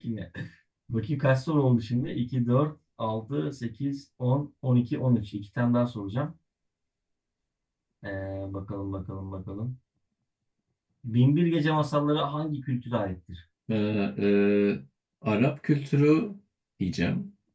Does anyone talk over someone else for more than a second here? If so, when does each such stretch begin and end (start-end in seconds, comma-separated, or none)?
none